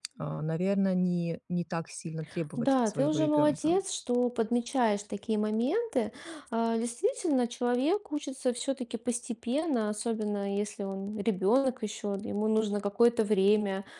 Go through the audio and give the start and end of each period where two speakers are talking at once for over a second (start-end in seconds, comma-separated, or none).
2.6-3.8